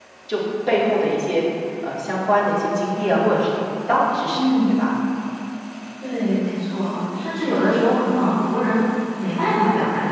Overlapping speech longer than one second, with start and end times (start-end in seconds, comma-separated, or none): none